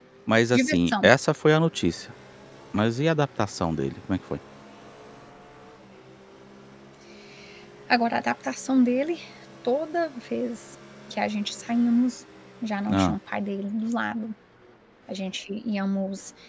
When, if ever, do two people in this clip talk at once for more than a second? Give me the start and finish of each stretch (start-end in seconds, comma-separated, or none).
none